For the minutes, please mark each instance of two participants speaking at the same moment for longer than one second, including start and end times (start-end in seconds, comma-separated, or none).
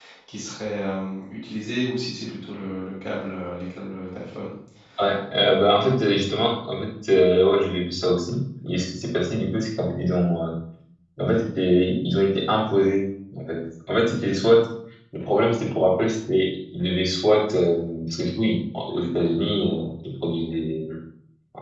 none